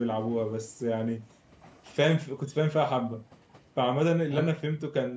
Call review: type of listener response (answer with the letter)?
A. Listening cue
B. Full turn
A